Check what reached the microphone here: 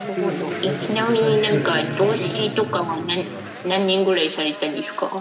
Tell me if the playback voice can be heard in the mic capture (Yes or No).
Yes